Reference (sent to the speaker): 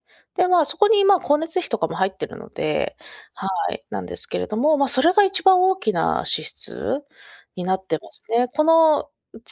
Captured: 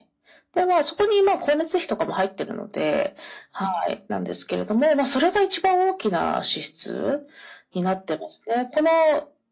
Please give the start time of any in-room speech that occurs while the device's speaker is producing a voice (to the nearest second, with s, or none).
none